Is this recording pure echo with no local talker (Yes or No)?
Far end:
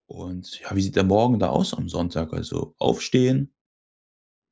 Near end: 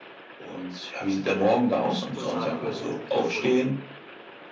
No